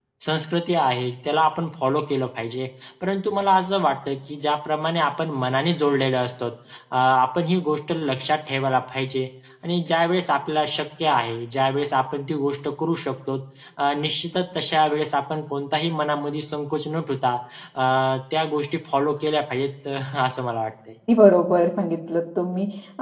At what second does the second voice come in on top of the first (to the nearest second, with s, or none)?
none